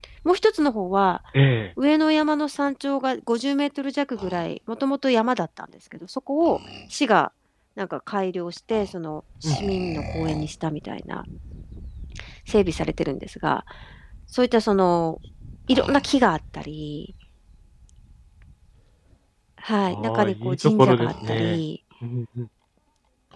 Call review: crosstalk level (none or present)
present